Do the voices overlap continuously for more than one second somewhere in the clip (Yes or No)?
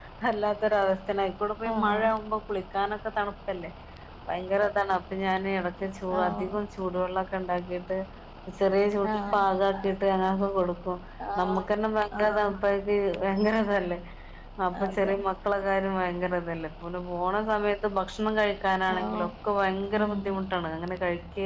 No